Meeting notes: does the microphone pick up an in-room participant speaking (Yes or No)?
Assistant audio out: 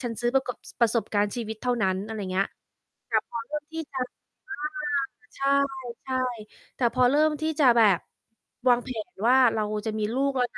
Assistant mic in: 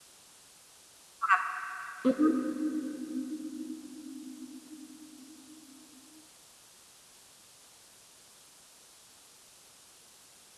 Yes